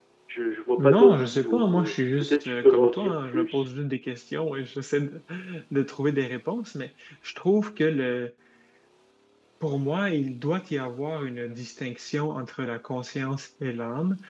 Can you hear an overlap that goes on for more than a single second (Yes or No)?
Yes